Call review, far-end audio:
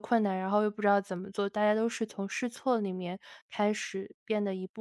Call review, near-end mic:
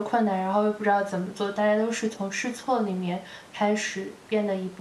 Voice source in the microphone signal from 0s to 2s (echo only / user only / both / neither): echo only